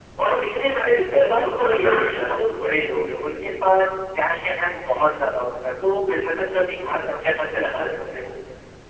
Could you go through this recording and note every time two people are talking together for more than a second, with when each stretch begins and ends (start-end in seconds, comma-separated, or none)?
1.1-2.4